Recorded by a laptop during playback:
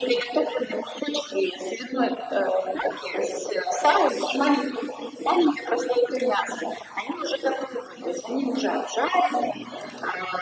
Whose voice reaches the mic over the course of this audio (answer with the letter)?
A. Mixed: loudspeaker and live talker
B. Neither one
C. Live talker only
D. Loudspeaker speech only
D